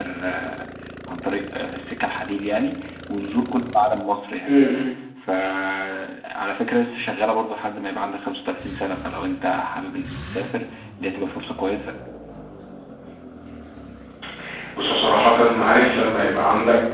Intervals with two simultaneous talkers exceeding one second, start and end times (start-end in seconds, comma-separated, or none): none